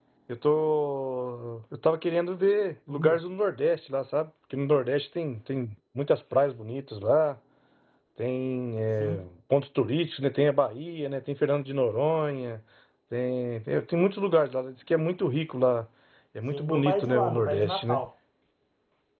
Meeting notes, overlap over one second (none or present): present